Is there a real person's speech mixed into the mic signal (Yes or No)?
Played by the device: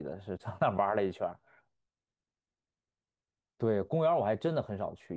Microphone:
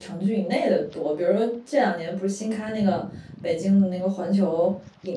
Yes